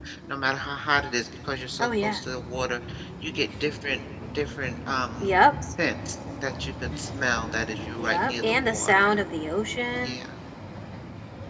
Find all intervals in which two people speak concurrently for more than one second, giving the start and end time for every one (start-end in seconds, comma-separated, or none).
8.0-9.2